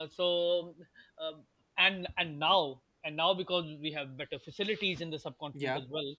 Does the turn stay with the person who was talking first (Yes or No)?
Yes